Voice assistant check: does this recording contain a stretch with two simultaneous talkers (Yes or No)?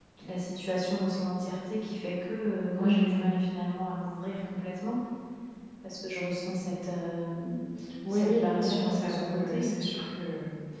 Yes